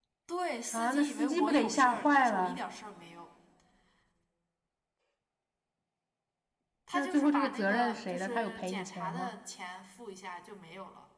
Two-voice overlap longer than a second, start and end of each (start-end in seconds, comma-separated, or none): 0.7-2.6, 6.9-9.3